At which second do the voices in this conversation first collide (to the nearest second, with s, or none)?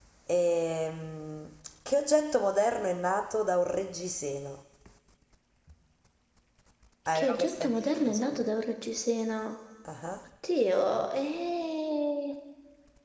7 s